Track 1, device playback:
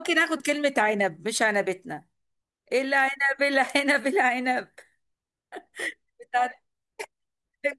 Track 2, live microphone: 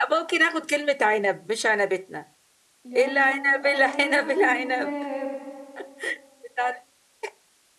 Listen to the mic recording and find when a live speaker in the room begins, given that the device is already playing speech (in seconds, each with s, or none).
2.8 s